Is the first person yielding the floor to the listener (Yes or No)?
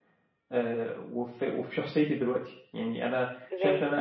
Yes